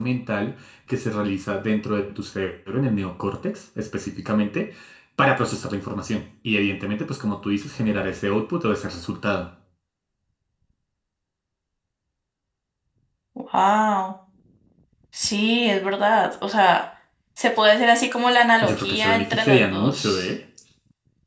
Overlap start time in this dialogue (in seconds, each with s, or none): 18.6 s